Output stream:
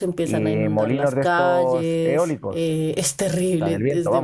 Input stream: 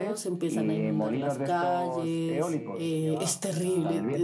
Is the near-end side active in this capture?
Yes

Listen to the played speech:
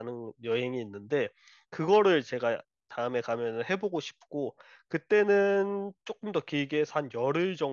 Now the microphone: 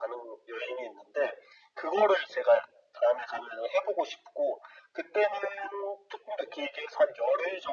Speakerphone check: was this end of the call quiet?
Yes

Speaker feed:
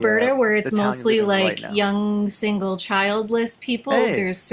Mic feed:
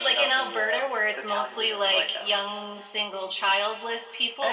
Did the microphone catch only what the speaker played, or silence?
Yes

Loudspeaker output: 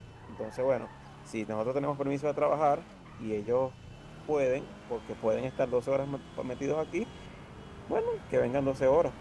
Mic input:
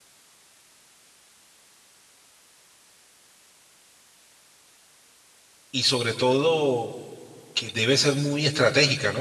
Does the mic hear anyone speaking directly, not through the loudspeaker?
Yes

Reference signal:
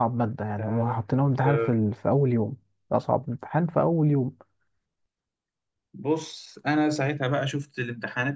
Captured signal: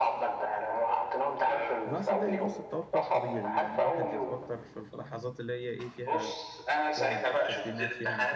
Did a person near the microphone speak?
Yes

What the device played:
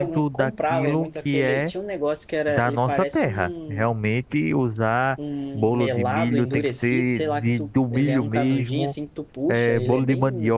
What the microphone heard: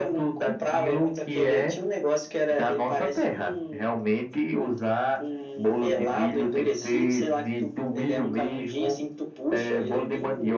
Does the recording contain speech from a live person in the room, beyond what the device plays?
No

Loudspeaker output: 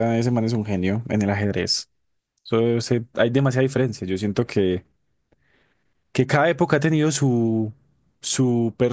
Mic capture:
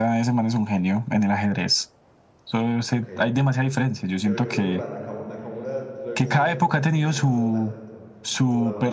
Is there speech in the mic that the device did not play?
Yes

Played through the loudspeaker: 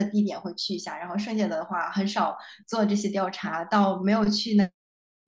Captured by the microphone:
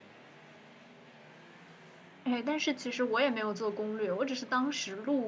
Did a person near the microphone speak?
Yes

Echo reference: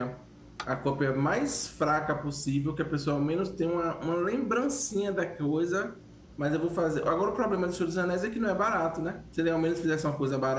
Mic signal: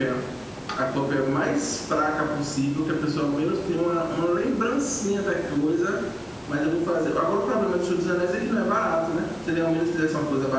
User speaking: No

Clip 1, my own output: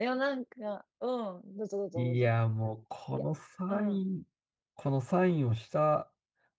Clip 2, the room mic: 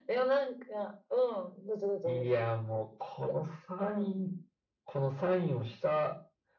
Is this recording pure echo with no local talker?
Yes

